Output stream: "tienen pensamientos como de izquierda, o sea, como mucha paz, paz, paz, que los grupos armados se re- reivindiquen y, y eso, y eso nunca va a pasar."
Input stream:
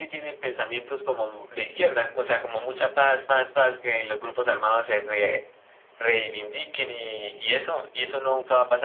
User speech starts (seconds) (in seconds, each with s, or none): none